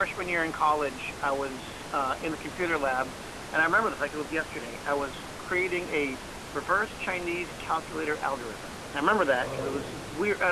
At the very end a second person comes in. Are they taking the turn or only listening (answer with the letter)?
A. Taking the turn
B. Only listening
B